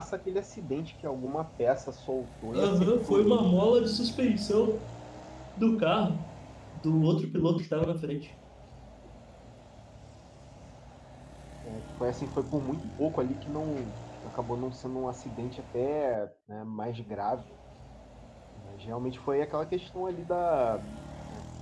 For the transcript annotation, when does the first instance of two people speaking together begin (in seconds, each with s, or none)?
2.5 s